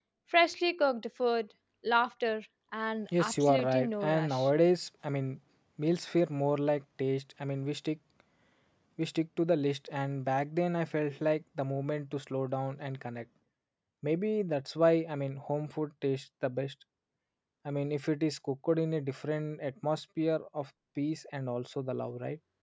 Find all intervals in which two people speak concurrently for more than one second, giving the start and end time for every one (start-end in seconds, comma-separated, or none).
3.2-4.5